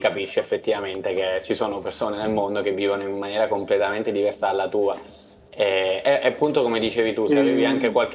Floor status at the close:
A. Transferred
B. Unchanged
B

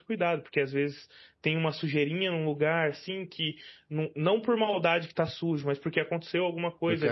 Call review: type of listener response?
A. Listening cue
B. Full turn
A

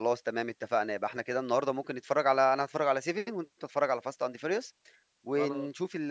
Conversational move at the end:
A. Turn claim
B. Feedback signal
B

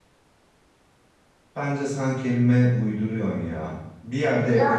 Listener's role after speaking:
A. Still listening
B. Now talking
A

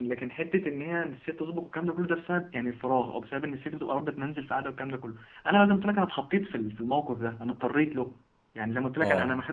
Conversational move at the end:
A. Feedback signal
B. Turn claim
A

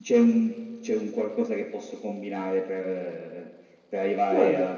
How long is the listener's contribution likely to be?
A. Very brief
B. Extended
A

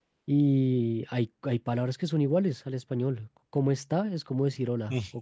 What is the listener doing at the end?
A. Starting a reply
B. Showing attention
B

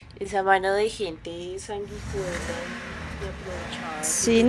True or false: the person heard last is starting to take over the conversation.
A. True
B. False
A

